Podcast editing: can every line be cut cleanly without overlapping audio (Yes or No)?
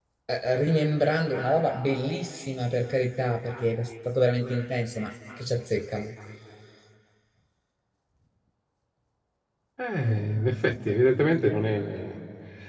Yes